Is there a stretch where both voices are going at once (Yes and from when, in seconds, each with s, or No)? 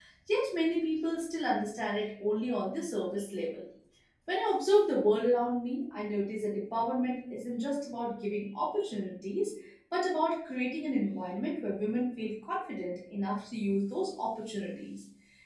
No